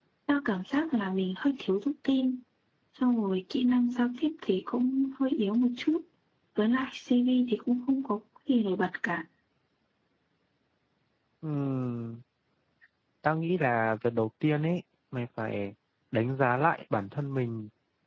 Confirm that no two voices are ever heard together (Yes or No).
Yes